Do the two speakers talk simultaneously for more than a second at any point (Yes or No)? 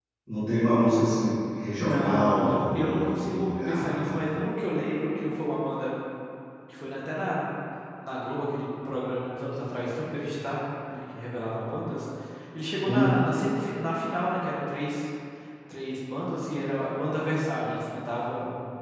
Yes